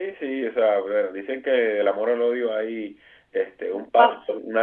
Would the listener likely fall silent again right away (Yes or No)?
Yes